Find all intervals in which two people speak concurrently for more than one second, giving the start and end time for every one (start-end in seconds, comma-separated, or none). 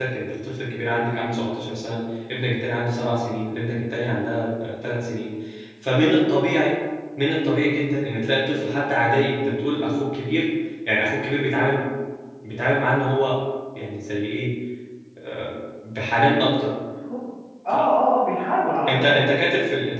none